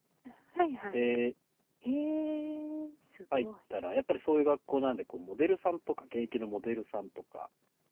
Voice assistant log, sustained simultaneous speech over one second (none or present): none